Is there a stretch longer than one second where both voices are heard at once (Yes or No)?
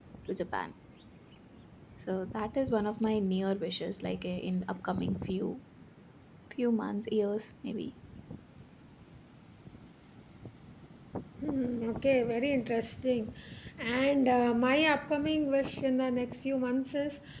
No